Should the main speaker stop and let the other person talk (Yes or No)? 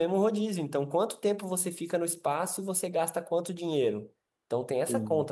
No